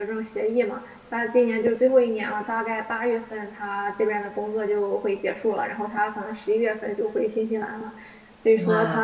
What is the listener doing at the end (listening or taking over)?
listening